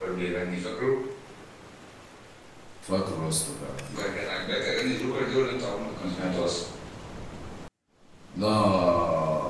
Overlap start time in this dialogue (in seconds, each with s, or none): none